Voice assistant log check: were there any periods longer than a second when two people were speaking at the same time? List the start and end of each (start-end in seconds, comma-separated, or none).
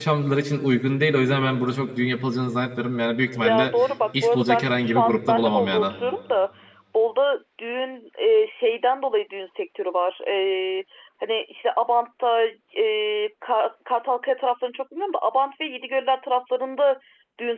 4.2-5.8